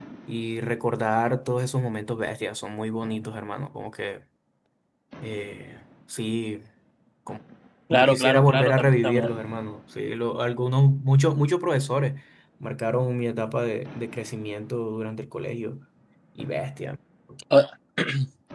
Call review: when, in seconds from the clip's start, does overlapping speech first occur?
7.9 s

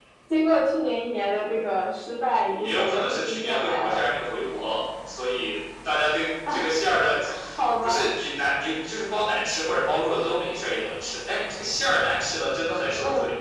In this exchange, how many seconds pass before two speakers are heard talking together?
2.5 s

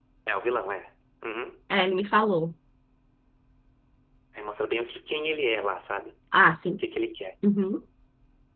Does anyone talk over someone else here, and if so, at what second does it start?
none

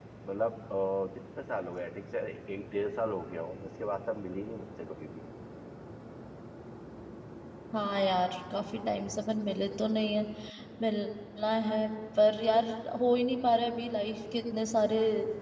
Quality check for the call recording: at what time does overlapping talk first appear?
none

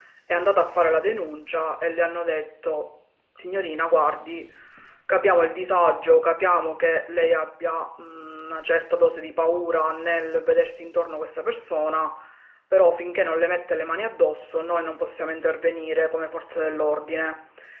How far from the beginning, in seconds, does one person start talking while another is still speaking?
none

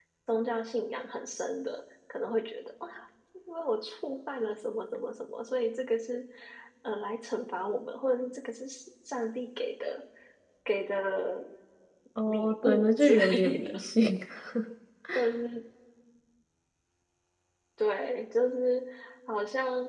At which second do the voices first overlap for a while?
12.3 s

